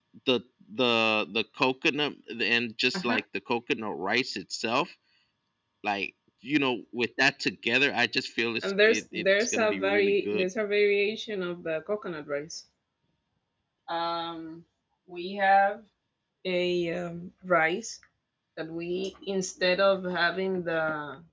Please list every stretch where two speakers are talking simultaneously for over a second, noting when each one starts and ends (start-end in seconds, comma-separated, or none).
8.6-10.5